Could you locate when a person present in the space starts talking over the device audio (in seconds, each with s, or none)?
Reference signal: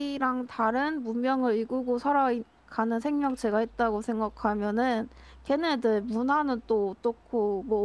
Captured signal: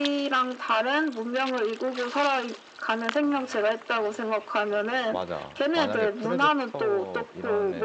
5.1 s